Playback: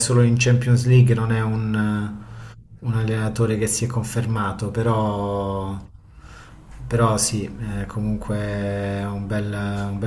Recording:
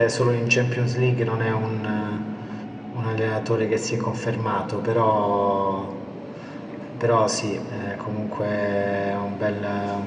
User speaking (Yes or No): No